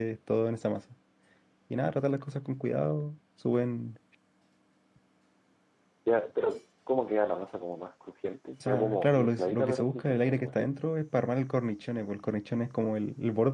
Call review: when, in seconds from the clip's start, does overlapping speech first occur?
8.6 s

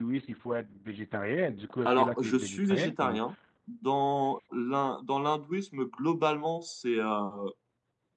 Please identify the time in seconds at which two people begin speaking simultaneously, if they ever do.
1.9 s

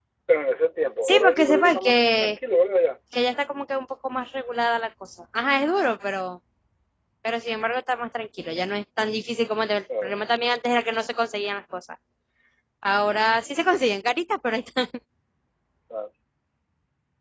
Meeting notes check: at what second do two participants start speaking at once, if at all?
1.0 s

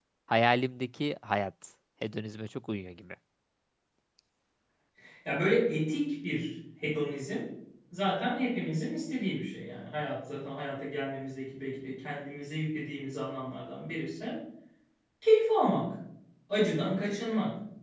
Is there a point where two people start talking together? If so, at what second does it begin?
none

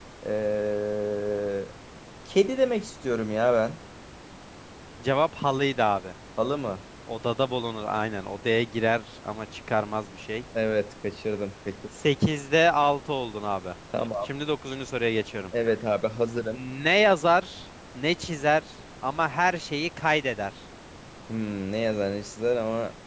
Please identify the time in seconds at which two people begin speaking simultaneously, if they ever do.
none

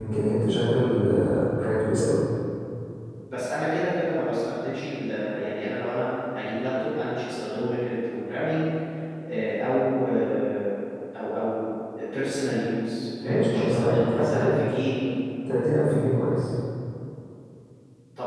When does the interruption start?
13.2 s

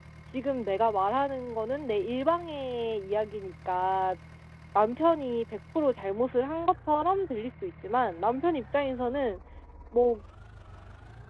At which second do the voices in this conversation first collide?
none

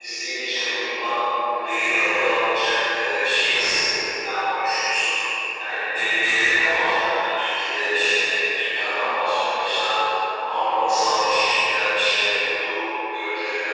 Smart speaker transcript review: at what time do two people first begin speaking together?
none

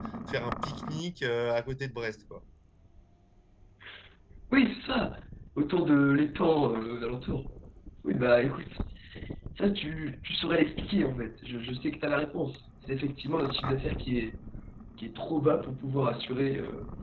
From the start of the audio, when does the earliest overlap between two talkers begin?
none

